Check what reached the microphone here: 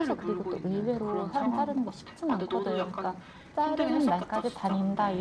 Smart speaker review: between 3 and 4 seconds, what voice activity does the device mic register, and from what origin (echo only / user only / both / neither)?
both